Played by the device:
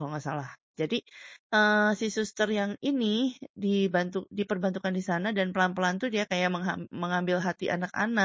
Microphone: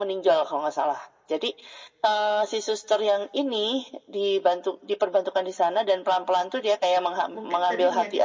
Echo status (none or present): present